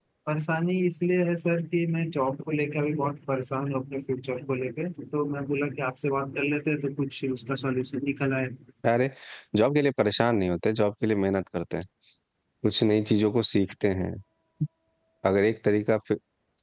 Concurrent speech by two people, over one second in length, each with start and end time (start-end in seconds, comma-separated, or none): none